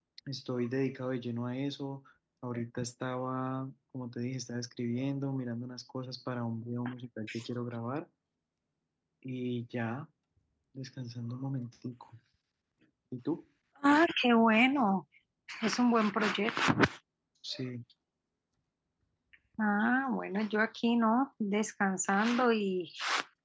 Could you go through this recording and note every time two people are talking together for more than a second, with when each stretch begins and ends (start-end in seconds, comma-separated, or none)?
none